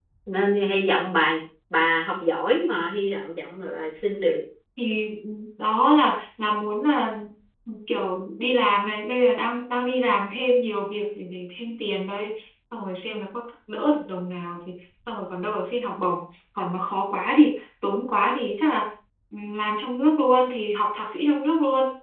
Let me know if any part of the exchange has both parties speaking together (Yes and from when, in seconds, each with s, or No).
No